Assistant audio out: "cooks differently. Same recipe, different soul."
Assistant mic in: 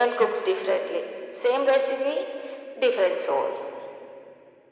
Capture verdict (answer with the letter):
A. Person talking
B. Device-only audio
B